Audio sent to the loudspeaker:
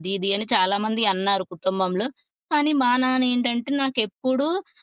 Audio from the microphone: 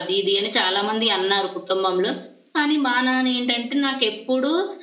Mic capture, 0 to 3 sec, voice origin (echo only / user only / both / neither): echo only